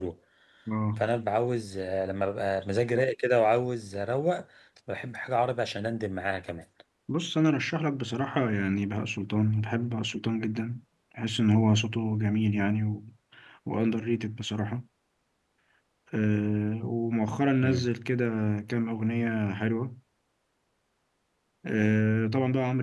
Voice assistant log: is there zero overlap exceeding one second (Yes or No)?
Yes